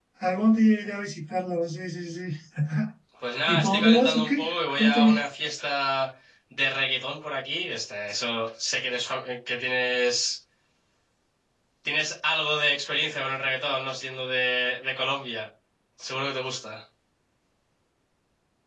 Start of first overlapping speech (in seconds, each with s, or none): 3.5 s